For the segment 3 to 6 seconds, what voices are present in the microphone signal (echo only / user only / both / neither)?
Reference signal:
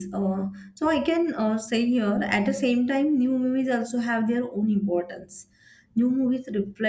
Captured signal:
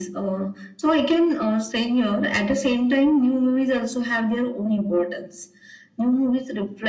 echo only